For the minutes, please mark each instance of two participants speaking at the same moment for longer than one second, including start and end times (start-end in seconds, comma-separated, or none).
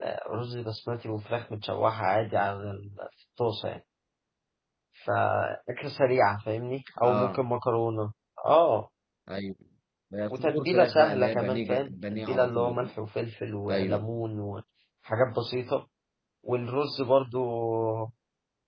10.3-12.9